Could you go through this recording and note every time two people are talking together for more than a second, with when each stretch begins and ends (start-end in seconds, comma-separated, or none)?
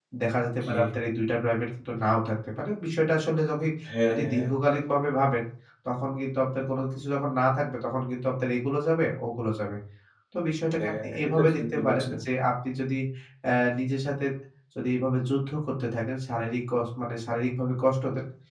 10.8-12.2